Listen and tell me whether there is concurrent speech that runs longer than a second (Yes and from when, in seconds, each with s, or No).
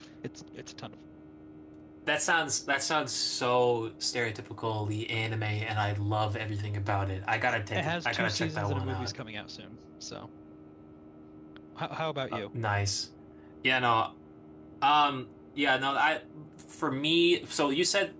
Yes, from 7.7 s